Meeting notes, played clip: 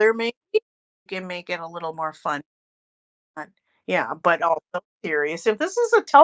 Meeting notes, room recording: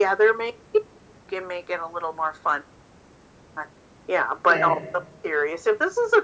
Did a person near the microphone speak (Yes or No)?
Yes